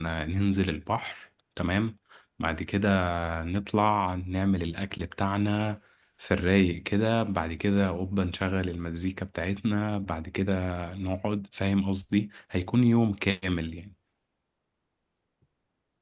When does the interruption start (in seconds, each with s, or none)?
none